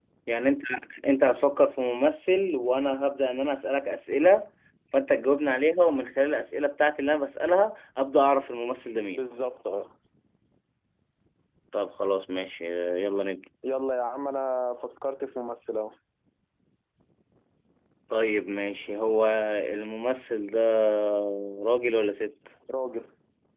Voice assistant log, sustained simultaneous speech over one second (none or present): none